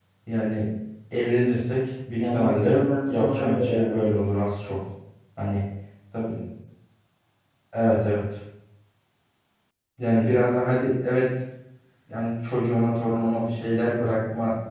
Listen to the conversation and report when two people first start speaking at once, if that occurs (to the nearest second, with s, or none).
2 s